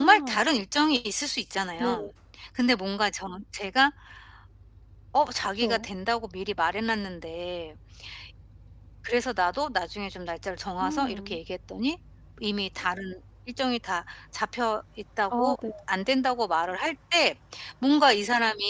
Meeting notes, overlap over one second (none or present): none